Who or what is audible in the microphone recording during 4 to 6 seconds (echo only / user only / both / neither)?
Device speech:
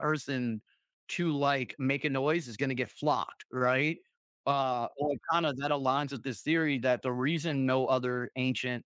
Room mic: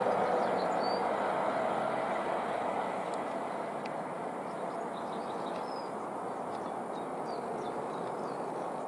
neither